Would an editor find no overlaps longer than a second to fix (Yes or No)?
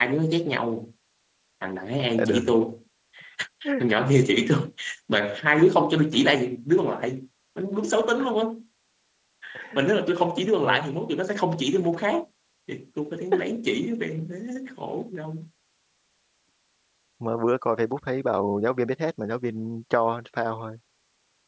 Yes